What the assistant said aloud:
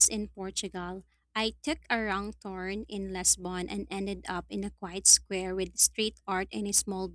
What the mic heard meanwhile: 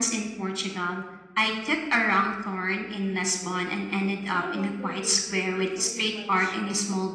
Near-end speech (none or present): present